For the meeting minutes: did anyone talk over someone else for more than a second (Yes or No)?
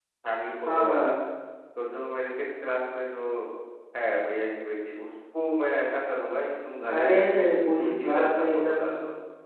Yes